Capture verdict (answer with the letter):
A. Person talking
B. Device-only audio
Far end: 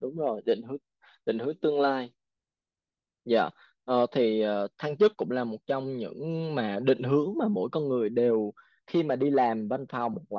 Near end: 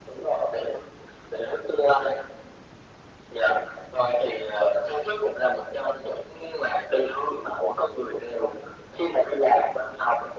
B